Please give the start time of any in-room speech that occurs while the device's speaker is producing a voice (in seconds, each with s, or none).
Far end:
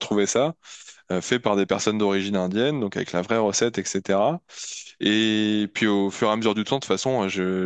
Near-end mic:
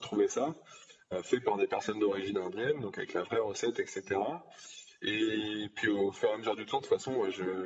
none